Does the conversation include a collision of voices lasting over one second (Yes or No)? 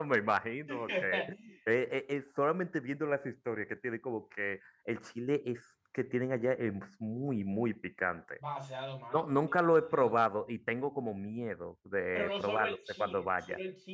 Yes